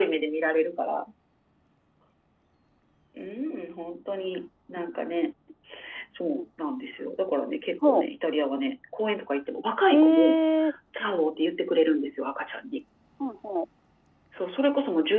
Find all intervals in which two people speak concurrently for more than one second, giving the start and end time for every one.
none

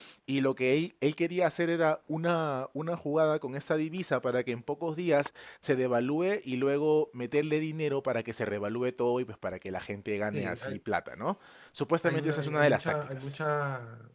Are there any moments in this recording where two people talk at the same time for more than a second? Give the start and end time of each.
12.0-13.3

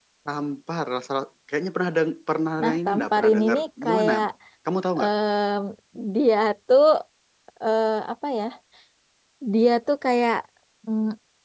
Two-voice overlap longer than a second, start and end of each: 2.6-4.1

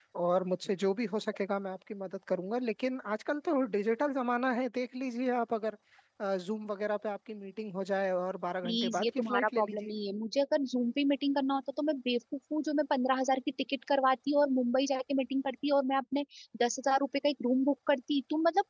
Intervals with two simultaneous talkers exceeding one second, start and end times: 8.6-9.9

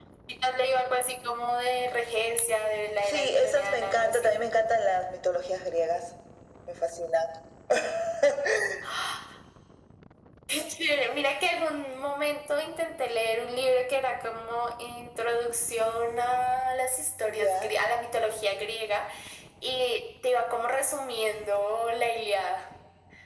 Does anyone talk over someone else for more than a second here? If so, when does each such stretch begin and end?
3.0-4.4

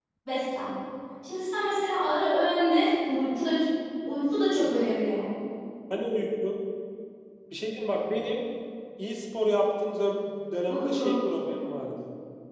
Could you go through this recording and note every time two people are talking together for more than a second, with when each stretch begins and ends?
none

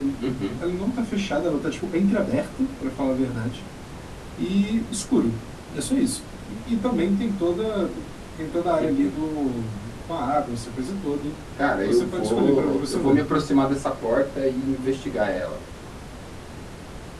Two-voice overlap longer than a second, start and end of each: 11.8-13.2

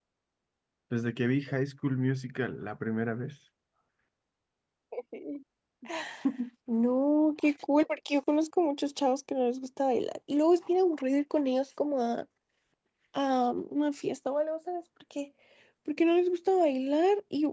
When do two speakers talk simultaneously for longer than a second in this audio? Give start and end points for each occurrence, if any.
none

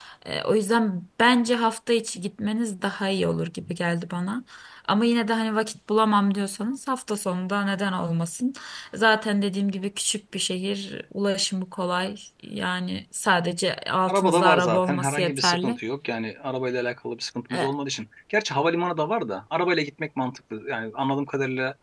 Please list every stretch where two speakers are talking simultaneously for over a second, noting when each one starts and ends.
14.1-15.8

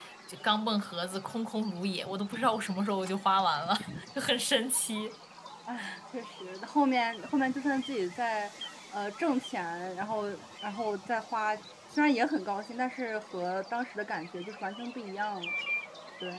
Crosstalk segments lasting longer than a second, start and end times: none

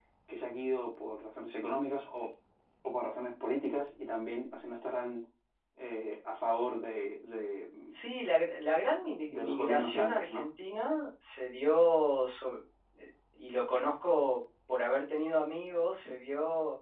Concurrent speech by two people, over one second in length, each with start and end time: 9.3-10.5

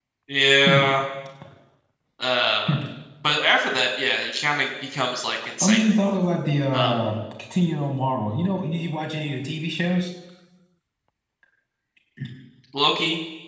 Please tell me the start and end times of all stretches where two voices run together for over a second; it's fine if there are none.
none

